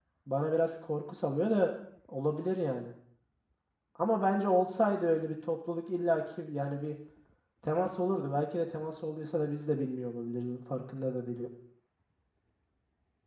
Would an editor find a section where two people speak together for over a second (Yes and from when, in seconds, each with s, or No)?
No